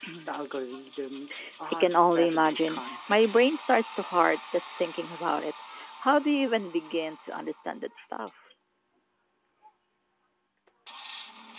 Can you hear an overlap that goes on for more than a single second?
Yes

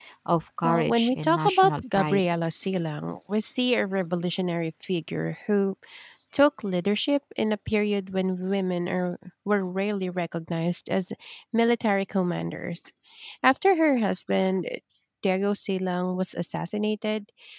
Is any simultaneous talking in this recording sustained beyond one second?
Yes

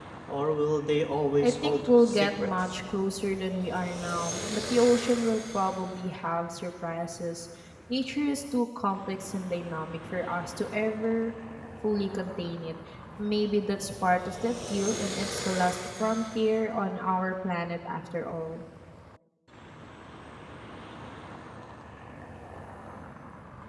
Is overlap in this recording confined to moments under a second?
No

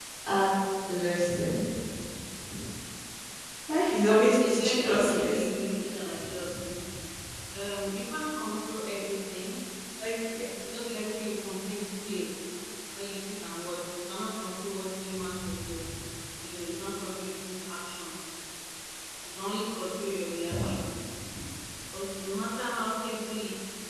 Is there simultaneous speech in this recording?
Yes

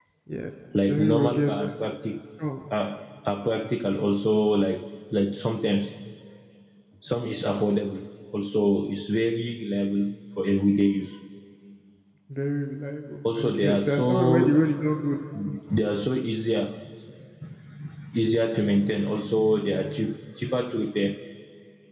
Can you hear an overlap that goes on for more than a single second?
Yes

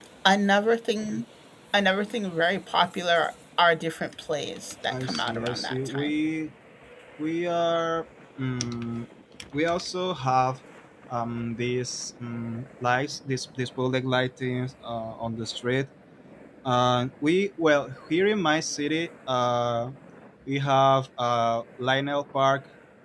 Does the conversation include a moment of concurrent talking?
Yes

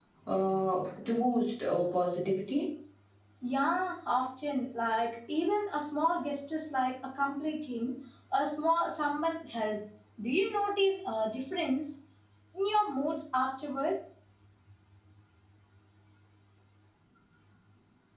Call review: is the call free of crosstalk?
Yes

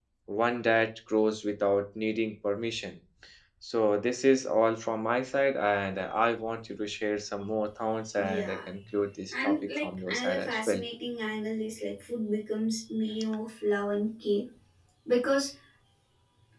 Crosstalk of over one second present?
Yes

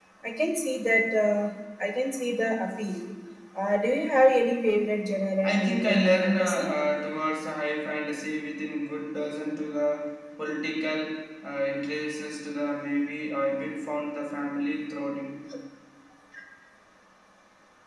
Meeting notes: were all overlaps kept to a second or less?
No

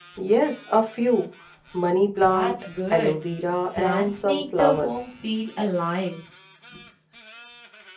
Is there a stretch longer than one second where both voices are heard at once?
Yes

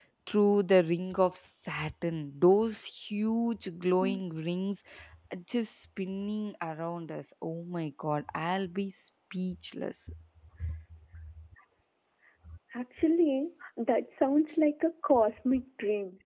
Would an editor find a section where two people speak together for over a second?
No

